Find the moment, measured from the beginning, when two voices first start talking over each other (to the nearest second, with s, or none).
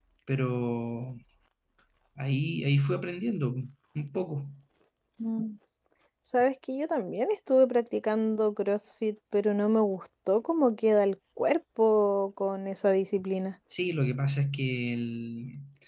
none